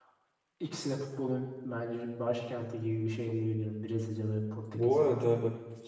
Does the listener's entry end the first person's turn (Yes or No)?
Yes